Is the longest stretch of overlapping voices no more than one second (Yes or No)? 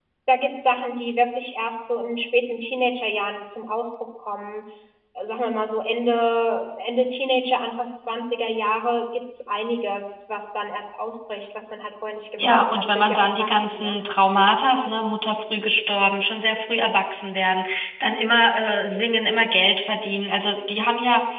No